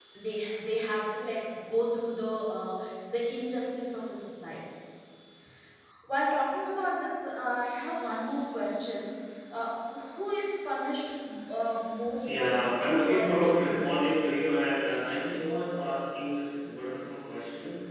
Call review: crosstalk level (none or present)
present